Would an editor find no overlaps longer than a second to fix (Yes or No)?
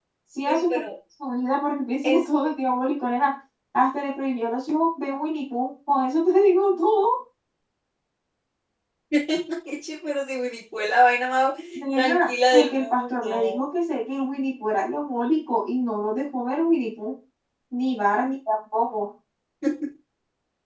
No